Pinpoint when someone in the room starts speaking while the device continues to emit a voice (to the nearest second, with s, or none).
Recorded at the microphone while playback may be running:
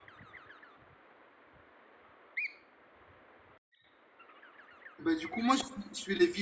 5 s